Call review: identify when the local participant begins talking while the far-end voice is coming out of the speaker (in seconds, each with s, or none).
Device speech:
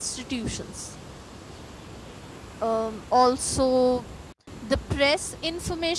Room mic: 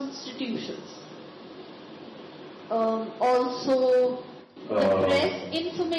4.7 s